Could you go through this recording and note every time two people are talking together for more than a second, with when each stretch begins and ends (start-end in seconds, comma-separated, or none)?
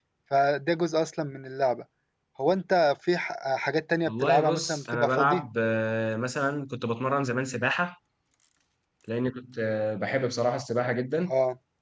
4.1-5.4